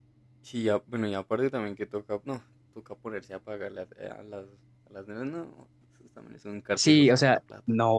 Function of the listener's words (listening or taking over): taking over